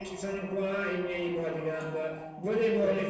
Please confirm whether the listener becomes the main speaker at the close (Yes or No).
No